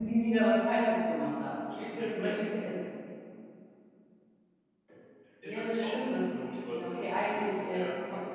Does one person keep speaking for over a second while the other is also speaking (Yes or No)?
Yes